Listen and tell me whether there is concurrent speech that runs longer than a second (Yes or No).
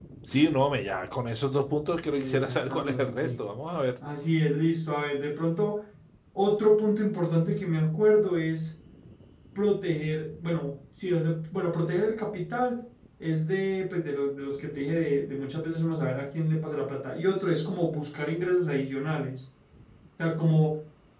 Yes